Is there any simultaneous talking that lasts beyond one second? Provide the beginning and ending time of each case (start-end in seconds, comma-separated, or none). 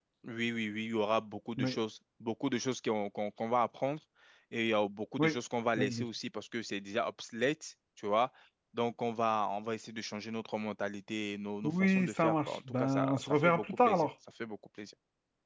11.6-14.1